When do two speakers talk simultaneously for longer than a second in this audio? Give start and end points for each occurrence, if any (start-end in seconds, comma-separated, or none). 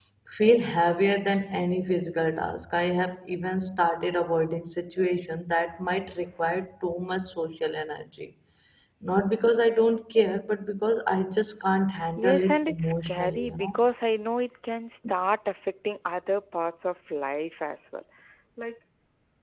12.2-13.8